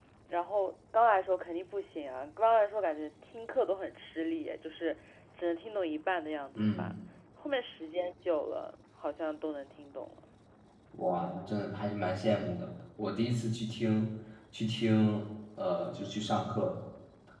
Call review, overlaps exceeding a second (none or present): none